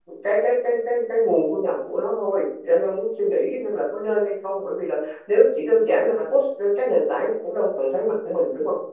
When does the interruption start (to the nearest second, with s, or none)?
none